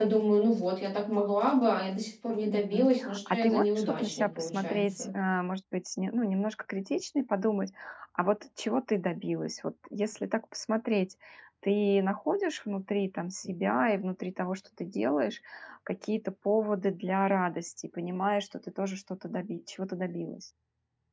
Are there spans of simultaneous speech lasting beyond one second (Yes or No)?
Yes